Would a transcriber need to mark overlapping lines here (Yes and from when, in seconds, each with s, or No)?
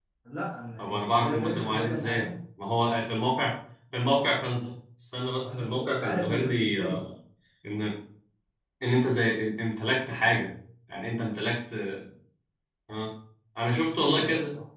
Yes, from 0.8 s